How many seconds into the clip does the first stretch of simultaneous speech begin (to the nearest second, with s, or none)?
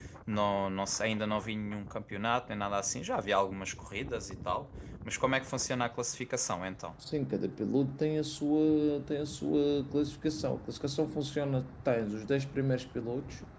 none